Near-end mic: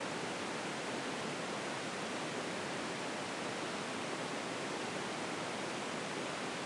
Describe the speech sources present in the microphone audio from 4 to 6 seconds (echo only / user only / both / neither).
neither